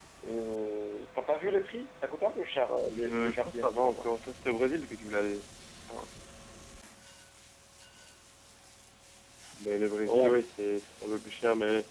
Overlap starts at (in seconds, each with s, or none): 2.9 s